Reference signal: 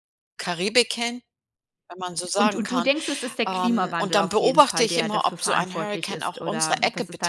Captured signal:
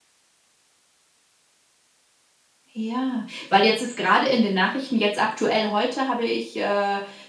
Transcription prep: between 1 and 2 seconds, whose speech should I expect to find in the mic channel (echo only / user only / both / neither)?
neither